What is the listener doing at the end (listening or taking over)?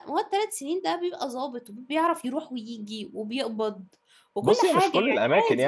taking over